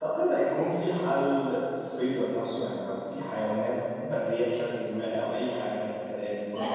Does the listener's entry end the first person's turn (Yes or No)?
Yes